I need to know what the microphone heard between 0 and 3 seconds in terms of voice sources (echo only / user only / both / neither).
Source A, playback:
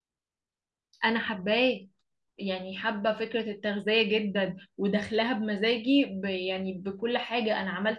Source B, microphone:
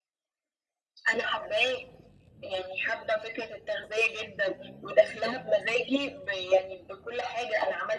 echo only